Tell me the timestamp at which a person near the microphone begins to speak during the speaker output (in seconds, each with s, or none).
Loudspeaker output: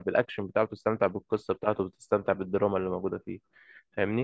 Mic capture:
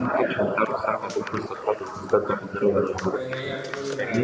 3.1 s